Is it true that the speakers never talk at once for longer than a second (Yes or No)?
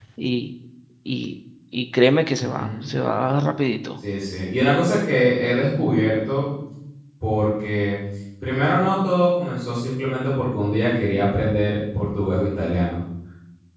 Yes